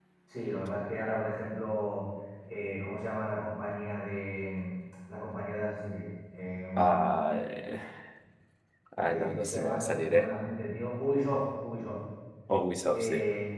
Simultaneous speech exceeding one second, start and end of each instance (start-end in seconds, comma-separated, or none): 9.1-10.3